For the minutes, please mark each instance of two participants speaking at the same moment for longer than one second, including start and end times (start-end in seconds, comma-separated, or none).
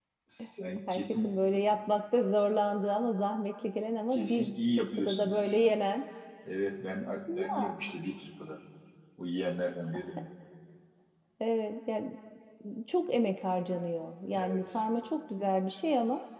4.1-5.6